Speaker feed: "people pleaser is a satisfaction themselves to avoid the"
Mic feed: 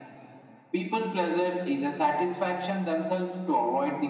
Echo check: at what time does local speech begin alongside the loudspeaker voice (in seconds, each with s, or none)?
none